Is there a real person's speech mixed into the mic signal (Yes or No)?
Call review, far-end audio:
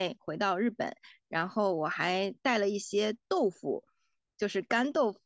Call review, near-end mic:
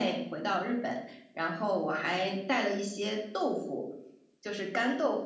No